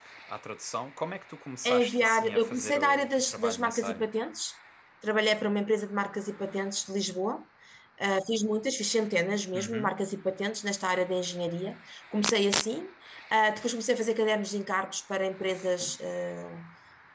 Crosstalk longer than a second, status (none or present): present